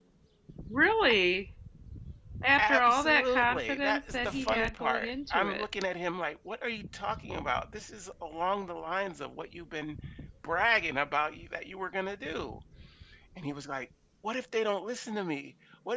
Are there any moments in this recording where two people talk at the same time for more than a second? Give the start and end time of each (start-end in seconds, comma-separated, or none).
2.6-5.6